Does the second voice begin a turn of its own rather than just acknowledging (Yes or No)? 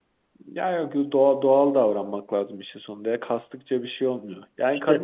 No